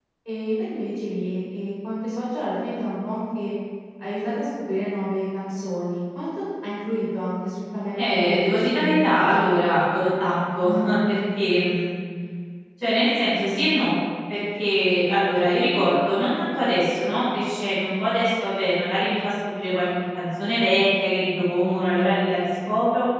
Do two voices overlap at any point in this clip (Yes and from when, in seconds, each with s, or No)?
Yes, from 8.0 s